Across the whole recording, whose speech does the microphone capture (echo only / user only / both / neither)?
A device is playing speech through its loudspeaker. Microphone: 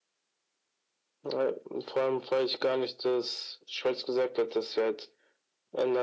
echo only